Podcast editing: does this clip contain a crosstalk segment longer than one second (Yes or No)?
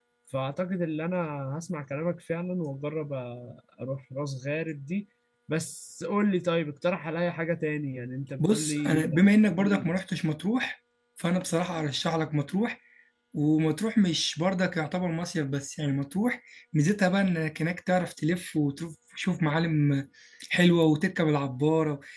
Yes